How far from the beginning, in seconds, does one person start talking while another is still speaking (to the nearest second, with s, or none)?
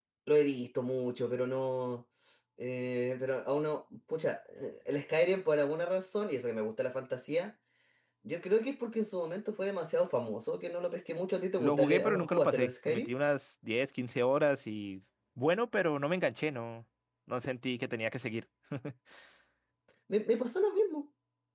12 s